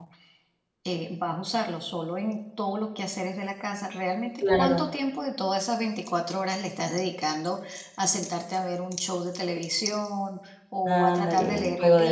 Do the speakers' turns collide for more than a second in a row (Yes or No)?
Yes